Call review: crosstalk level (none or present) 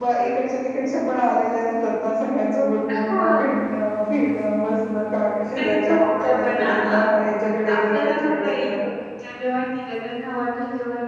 present